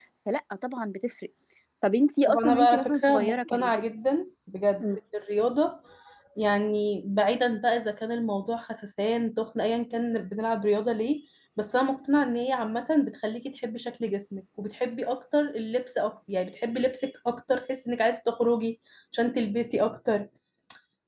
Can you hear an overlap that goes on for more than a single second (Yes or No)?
Yes